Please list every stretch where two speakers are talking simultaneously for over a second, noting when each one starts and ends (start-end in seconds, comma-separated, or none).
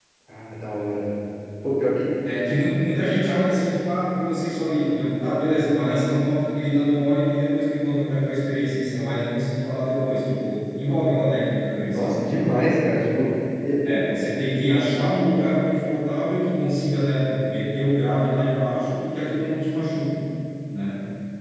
none